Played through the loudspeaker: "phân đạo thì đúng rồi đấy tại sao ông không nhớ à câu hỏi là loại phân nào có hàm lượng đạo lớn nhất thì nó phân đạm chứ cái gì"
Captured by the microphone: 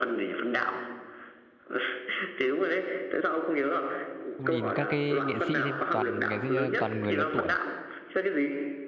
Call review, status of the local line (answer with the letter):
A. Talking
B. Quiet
A